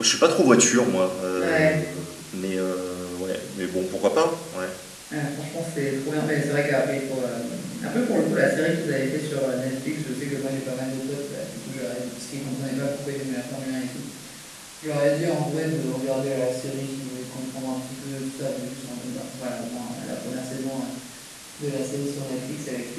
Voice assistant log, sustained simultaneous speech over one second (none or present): none